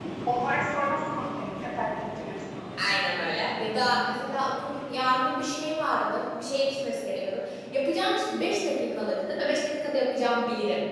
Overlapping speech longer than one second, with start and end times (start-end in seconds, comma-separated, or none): none